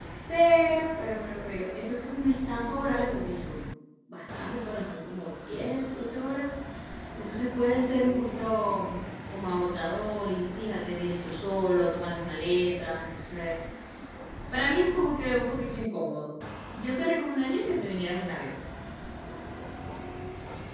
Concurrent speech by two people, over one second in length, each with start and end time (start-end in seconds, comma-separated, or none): none